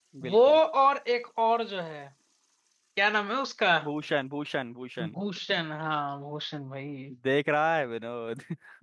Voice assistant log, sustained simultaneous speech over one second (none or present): none